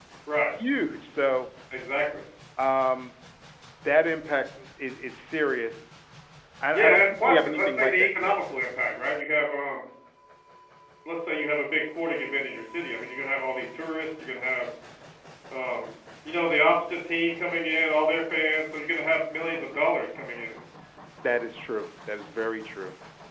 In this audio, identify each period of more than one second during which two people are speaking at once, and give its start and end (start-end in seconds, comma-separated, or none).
6.7-8.3